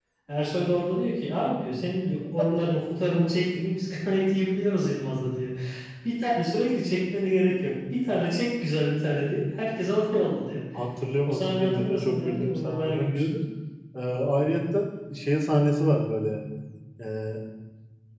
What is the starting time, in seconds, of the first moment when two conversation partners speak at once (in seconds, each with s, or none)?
11.3 s